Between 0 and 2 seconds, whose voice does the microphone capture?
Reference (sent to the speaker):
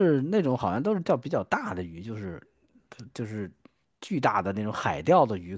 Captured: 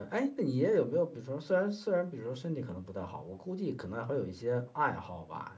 user only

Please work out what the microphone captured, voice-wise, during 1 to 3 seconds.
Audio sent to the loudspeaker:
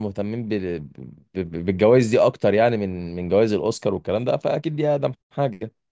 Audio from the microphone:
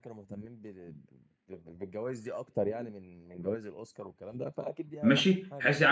echo only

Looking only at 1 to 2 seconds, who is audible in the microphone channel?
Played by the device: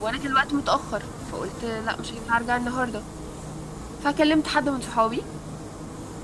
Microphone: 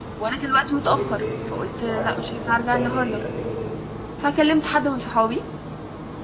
both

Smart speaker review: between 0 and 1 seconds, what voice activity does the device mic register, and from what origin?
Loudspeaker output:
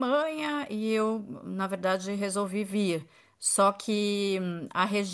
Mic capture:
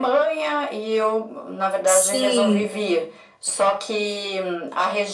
echo only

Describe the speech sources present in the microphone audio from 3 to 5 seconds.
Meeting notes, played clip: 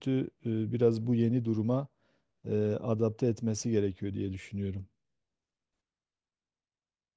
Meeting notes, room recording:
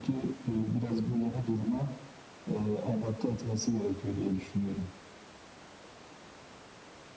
echo only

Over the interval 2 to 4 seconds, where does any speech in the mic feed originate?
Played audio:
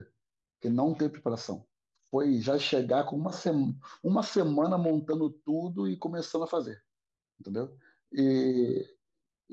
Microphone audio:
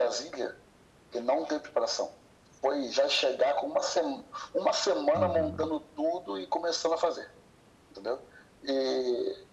echo only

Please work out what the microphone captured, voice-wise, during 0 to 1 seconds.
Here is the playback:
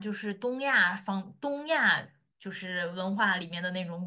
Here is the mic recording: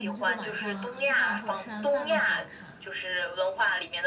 both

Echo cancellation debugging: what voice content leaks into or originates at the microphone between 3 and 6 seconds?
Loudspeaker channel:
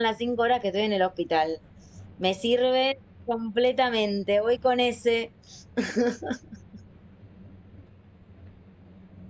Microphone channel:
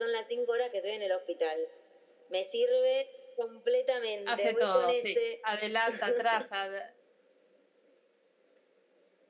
both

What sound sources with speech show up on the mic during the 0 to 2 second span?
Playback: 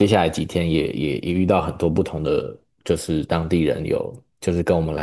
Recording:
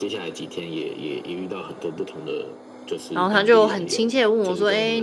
echo only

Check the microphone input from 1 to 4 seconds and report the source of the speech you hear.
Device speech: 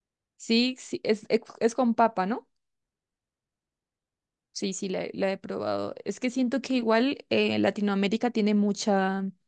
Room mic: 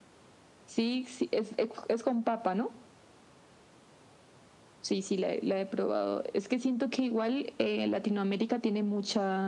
echo only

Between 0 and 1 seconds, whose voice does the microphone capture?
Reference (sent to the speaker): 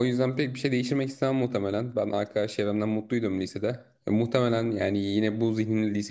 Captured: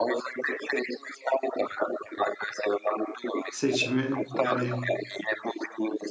echo only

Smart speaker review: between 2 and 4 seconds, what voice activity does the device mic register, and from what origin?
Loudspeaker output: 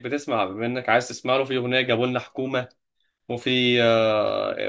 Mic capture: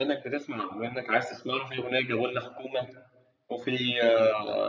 echo only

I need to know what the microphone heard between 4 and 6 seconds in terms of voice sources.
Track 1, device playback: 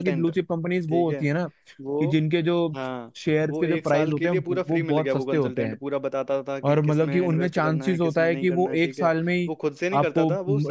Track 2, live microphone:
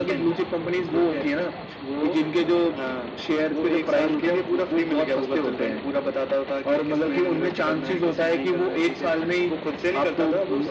echo only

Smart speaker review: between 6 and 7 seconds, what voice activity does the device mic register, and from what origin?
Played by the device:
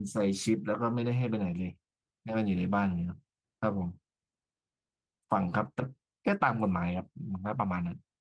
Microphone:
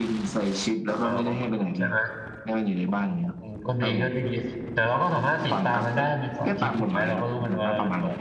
both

